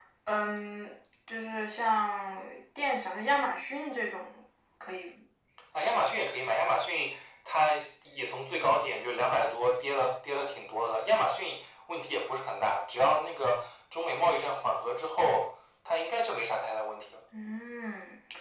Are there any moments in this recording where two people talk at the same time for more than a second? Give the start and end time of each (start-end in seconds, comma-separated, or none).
none